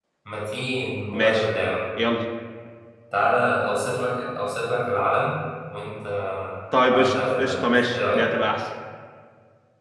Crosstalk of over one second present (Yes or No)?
Yes